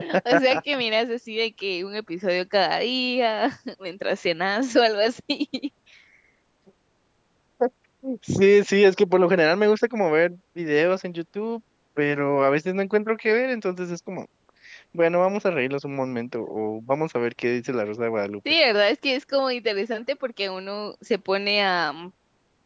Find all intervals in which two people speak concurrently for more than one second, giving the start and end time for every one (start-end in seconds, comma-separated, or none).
none